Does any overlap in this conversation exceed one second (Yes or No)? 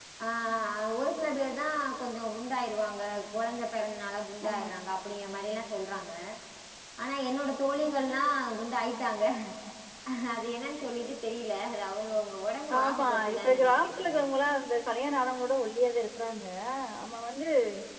Yes